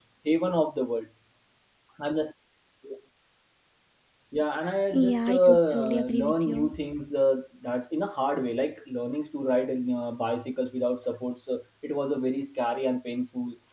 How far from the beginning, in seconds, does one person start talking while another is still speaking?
4.9 s

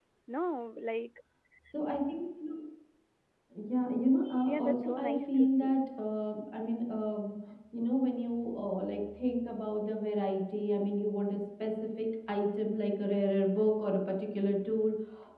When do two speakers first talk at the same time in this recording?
4.5 s

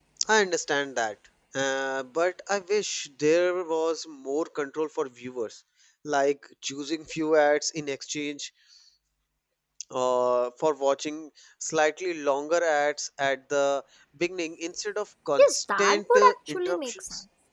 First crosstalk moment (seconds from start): 15.4 s

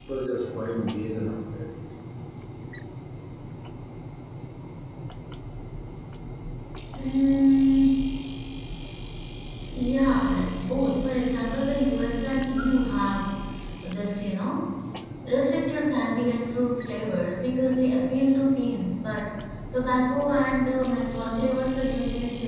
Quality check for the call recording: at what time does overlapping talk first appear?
none

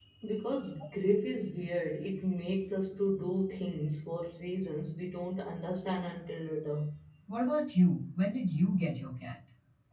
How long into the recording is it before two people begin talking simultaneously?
none

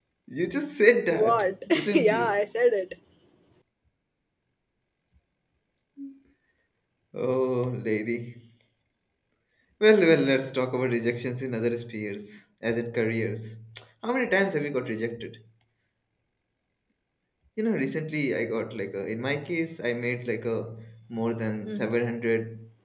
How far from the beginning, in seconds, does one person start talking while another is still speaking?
1.1 s

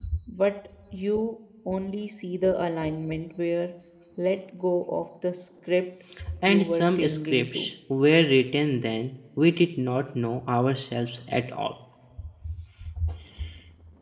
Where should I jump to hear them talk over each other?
6.5 s

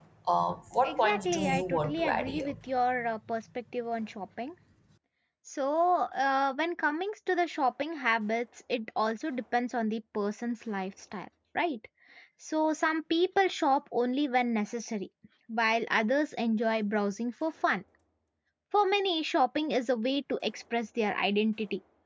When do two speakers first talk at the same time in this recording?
0.8 s

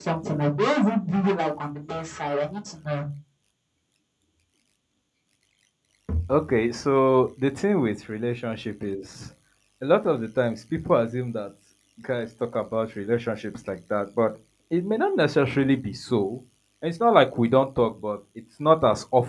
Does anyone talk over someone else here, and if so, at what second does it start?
none

